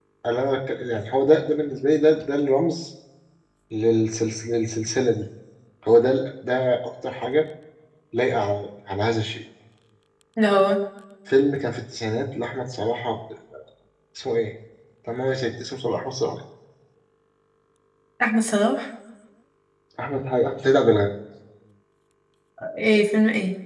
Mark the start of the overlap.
none

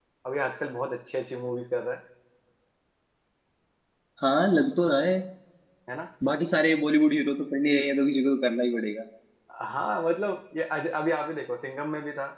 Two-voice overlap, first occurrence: none

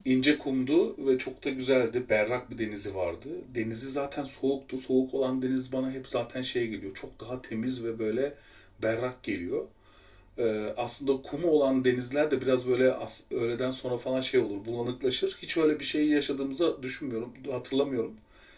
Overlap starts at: none

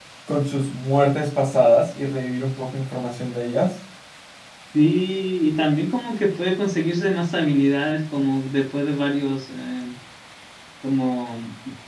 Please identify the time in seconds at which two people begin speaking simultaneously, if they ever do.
none

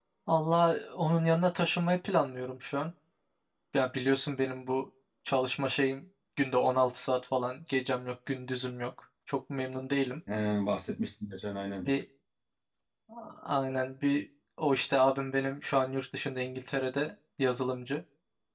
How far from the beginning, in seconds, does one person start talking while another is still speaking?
none

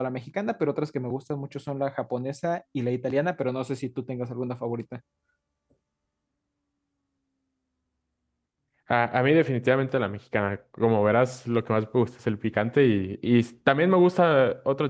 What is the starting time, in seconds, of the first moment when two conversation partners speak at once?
none

